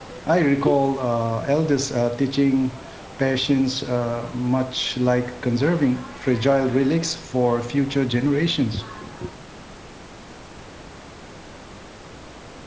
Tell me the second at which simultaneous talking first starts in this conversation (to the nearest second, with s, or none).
none